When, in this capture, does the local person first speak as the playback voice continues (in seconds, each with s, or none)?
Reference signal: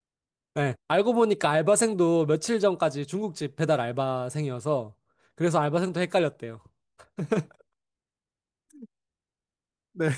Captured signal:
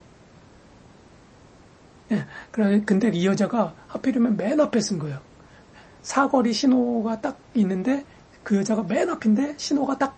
2.1 s